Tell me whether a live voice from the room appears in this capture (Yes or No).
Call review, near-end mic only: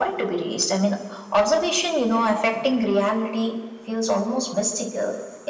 No